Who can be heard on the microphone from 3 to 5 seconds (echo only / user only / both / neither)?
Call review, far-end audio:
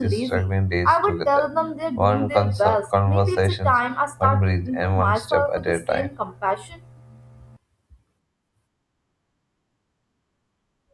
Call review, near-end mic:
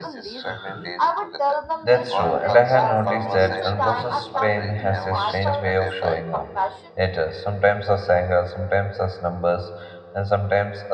both